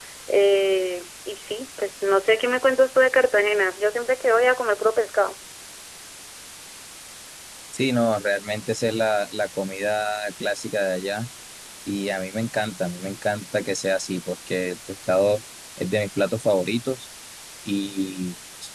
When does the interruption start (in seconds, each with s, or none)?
none